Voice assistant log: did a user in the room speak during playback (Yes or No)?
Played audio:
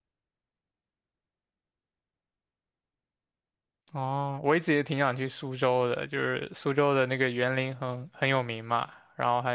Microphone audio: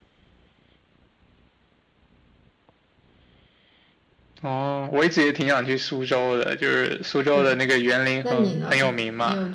Yes